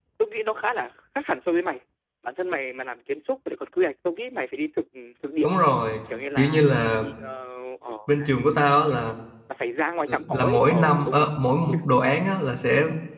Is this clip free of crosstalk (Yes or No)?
No